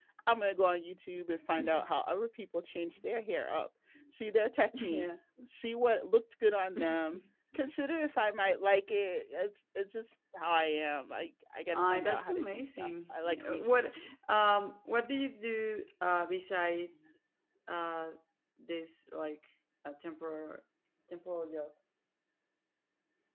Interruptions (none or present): present